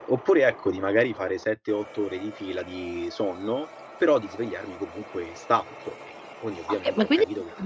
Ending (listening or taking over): taking over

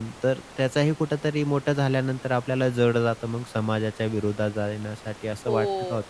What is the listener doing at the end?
taking over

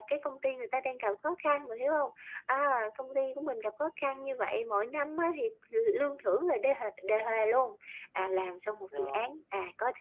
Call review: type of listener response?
listening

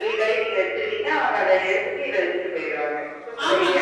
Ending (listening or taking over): taking over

